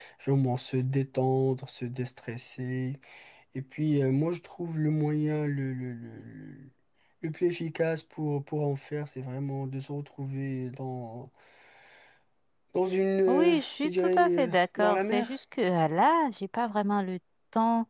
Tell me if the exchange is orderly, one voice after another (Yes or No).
No